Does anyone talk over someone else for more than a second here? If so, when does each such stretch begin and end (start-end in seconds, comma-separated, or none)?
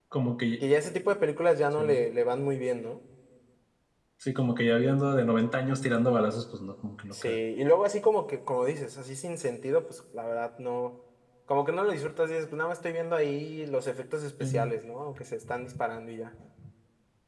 none